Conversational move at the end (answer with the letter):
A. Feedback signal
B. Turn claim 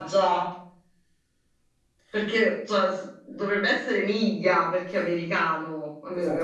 B